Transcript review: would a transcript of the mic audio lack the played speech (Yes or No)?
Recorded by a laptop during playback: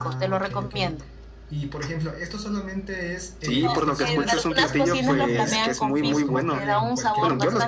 No